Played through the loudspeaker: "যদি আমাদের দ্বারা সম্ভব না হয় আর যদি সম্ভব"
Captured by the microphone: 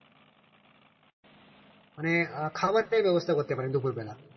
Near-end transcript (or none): মানে আহ, খাবারের ব্যবস্থা করতে পারেন দুপুরবেলা